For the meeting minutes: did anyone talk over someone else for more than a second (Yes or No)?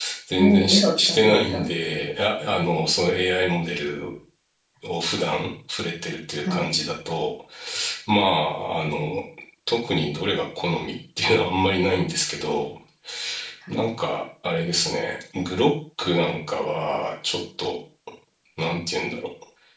Yes